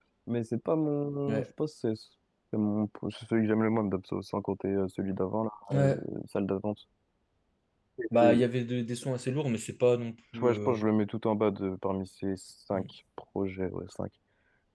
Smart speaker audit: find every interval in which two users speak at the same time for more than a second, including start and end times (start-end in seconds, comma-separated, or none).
none